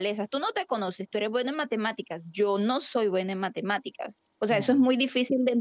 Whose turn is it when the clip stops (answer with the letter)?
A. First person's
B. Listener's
A